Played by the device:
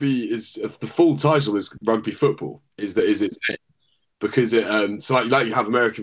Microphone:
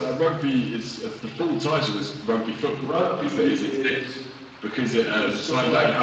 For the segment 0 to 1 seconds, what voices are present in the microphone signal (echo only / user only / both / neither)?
echo only